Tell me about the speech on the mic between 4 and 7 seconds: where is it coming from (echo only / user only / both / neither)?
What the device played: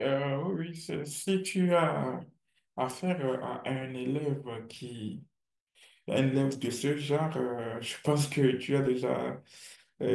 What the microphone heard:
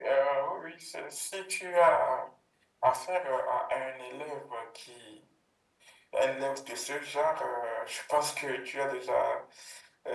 echo only